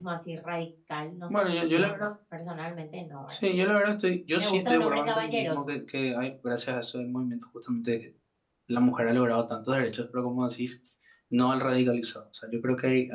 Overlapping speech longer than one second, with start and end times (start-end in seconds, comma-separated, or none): 4.4-5.7